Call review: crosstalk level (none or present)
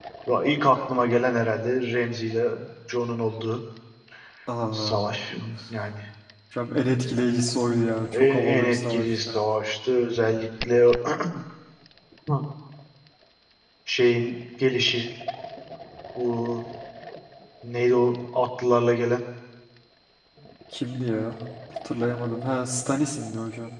present